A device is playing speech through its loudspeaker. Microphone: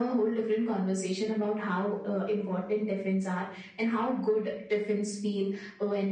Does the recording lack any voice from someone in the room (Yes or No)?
Yes